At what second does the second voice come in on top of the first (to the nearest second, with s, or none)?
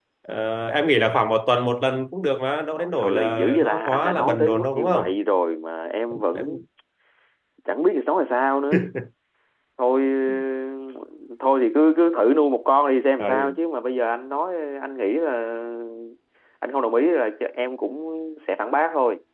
3 s